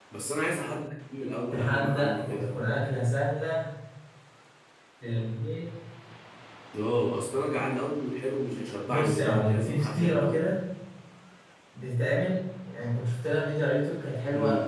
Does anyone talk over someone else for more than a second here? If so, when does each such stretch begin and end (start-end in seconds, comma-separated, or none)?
1.5-2.9, 8.9-10.4